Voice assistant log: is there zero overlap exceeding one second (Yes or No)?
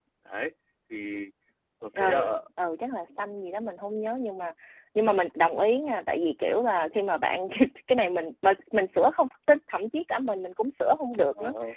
Yes